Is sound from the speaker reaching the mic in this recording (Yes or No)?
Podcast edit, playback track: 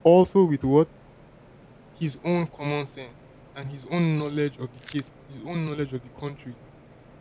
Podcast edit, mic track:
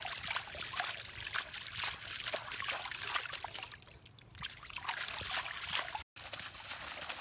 No